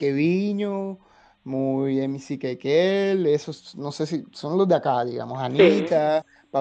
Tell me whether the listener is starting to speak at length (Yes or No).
No